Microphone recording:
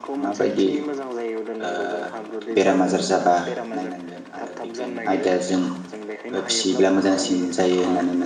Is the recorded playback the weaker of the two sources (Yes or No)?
Yes